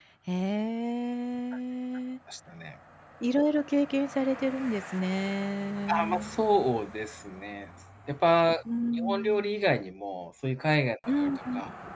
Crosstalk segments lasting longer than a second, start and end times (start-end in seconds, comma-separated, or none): none